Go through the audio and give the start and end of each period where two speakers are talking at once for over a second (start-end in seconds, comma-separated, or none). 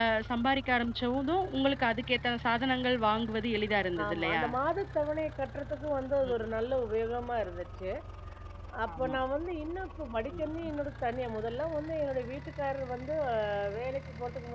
none